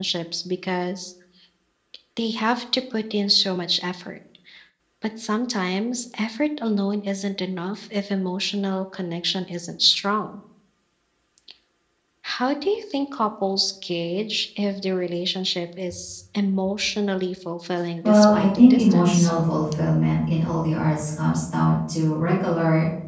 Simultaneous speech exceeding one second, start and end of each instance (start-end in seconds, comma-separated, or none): 18.0-19.3